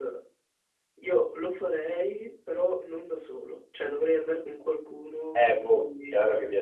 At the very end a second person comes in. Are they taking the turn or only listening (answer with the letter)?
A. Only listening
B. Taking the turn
B